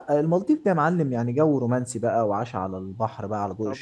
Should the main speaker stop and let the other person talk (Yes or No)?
Yes